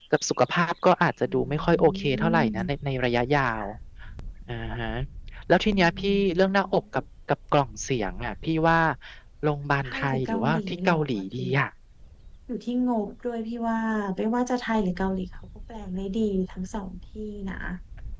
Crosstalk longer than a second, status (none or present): present